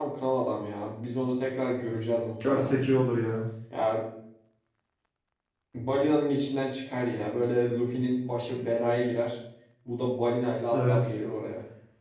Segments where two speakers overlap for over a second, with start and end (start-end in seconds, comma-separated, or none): none